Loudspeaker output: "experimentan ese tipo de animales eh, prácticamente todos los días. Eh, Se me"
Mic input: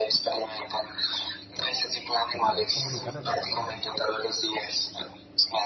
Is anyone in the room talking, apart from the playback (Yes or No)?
Yes